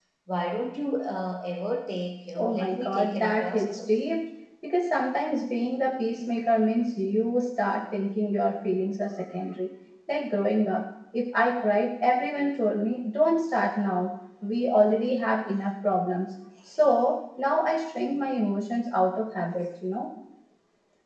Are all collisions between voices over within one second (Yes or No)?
No